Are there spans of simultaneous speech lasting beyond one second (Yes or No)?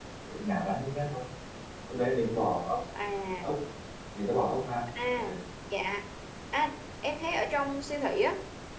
No